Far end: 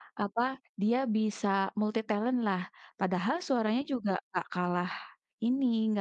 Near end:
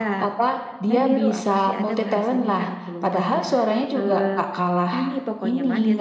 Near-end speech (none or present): present